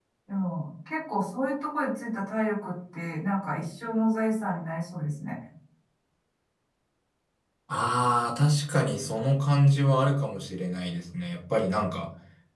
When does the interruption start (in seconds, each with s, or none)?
none